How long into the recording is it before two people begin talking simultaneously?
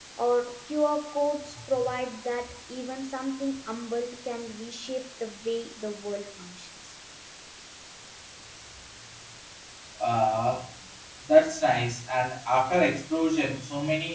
none

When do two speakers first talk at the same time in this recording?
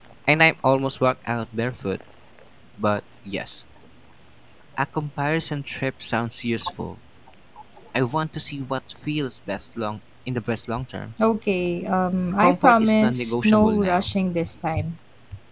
12.3 s

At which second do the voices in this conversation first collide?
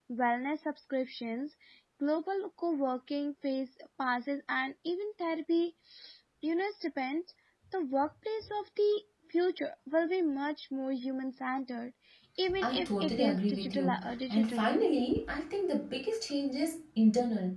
12.6 s

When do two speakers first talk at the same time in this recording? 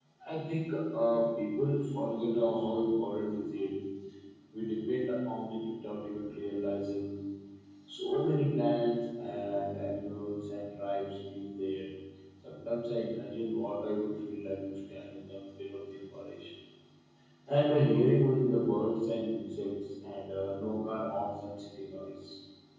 none

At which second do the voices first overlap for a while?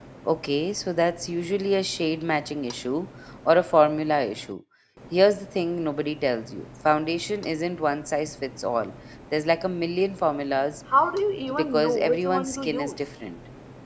11.5 s

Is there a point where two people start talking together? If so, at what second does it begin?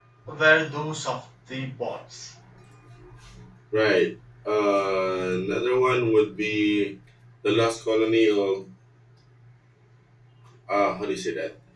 none

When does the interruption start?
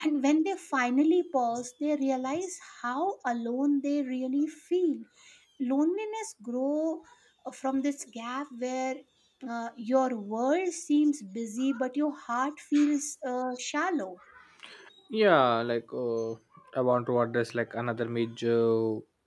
none

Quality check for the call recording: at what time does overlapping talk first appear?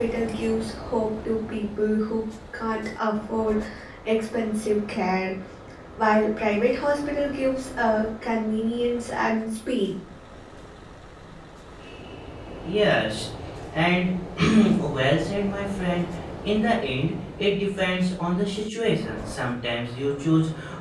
none

